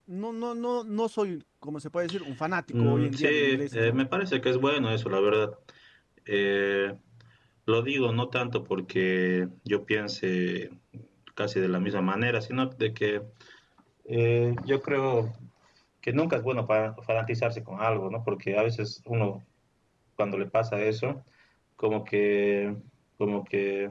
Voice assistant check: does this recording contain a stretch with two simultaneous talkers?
Yes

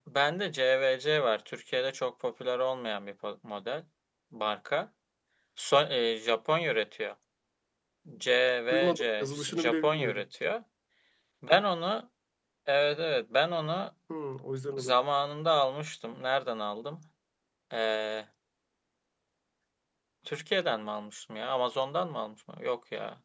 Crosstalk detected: Yes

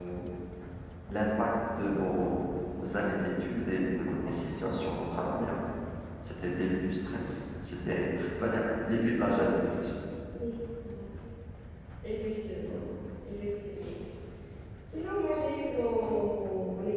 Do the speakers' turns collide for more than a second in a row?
No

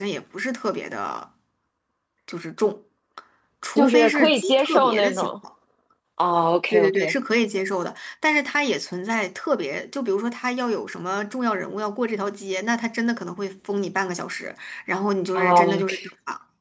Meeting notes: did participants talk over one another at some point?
Yes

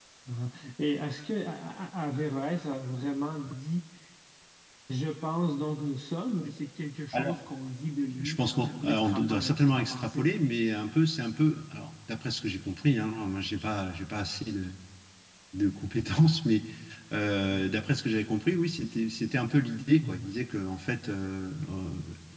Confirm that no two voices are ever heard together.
No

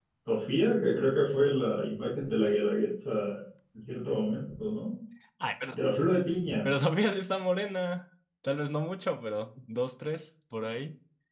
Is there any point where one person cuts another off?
No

